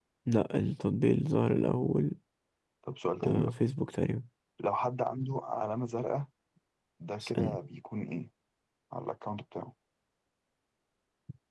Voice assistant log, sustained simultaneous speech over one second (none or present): none